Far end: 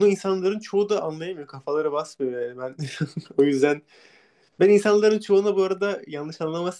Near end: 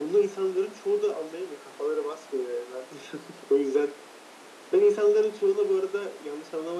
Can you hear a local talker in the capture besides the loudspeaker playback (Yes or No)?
No